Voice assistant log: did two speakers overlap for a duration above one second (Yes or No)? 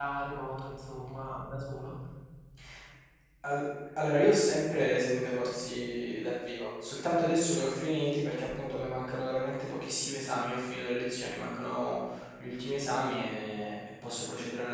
No